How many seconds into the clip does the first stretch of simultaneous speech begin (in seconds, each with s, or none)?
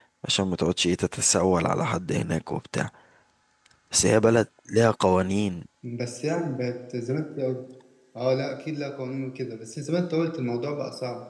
none